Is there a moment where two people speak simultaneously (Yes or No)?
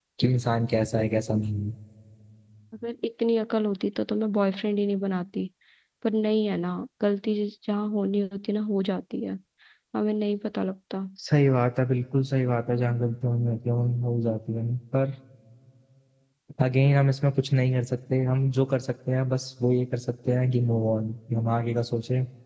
No